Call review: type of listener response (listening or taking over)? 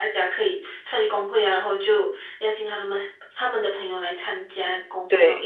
taking over